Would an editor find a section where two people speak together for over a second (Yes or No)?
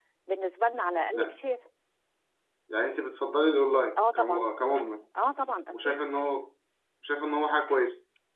No